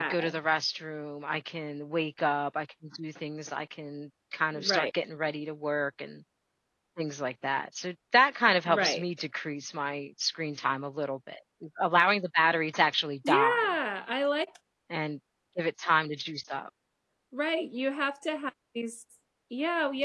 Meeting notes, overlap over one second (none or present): none